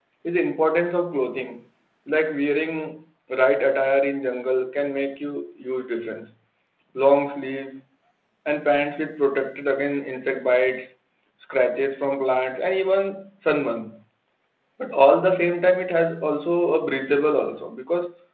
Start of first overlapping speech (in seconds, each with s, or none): none